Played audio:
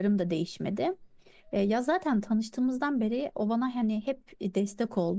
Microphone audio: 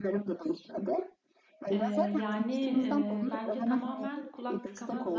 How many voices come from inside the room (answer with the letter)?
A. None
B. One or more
B